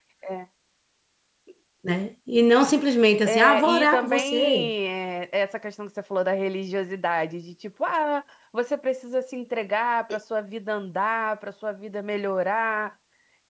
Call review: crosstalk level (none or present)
present